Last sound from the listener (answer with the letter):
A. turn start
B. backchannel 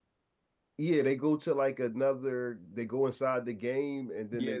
A